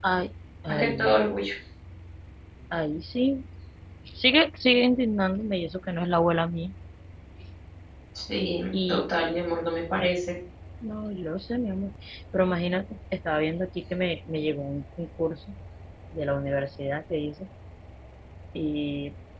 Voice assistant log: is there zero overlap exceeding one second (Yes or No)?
Yes